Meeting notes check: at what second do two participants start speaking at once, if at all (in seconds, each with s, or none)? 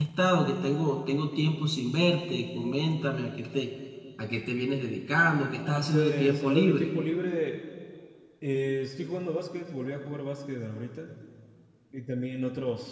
5.6 s